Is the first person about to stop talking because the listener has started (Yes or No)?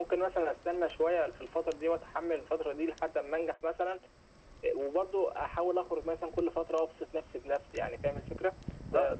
Yes